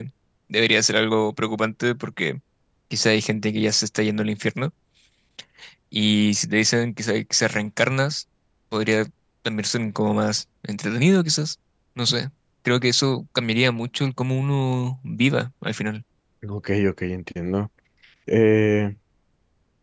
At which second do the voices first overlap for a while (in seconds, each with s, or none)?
none